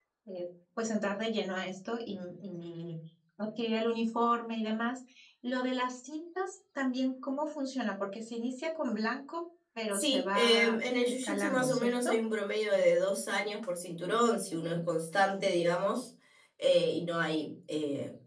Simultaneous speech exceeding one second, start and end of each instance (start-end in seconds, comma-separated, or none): 9.9-12.1